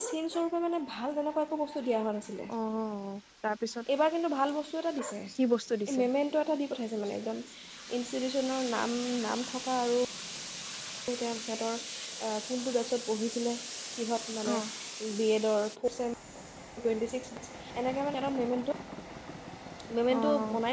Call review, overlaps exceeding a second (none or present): none